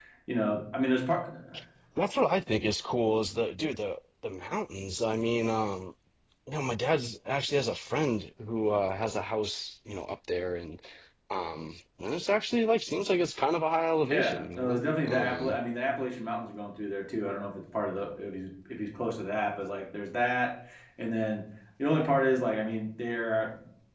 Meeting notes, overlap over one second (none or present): present